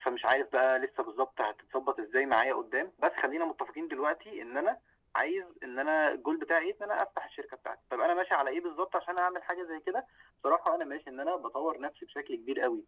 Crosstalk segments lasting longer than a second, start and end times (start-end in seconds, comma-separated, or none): none